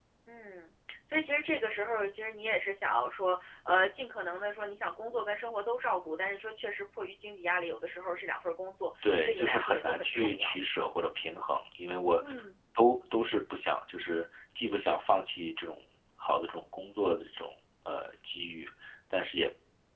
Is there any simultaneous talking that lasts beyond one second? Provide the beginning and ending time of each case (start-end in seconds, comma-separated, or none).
9.0-10.8